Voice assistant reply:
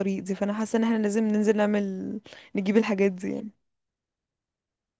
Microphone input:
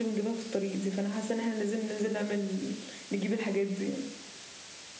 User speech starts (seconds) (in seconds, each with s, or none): none